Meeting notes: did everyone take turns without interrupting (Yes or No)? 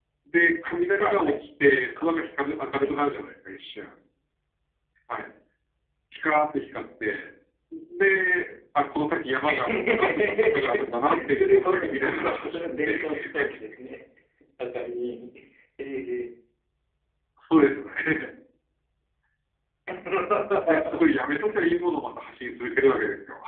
No